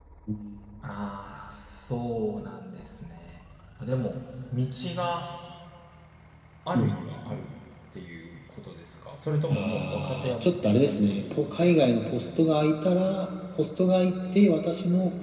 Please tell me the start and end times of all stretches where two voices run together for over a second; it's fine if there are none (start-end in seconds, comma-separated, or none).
9.5-11.9